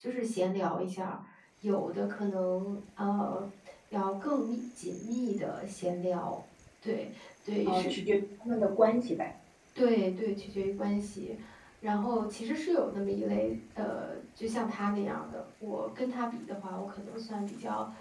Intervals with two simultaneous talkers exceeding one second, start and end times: none

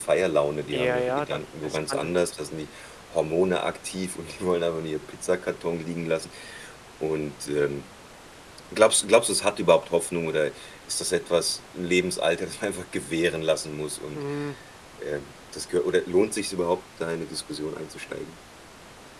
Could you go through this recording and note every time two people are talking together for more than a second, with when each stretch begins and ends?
0.7-2.1

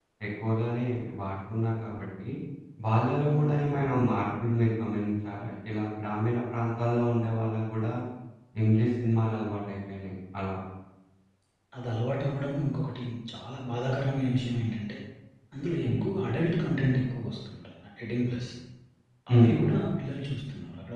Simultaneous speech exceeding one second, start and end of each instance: none

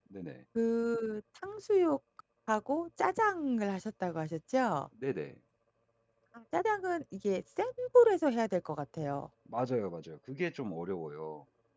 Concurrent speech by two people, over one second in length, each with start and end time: none

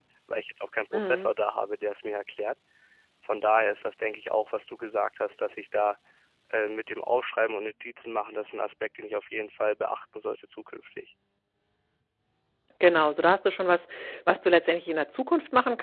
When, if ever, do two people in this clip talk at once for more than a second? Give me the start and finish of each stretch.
none

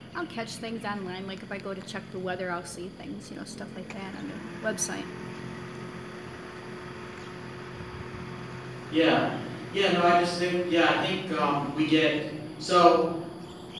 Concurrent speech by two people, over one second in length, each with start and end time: none

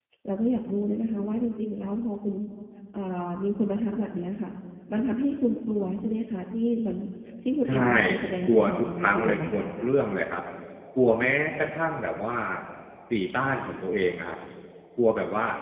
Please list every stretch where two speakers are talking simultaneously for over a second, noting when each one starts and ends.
8.5-9.8

